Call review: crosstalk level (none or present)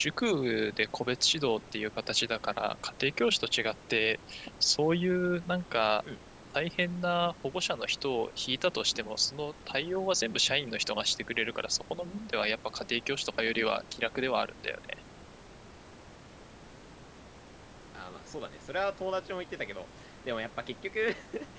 none